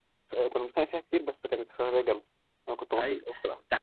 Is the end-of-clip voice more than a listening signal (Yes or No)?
Yes